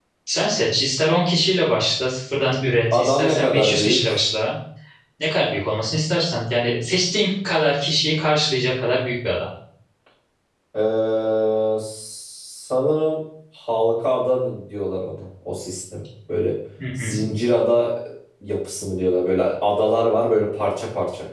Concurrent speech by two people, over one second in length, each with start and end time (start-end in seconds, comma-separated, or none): 2.9-4.2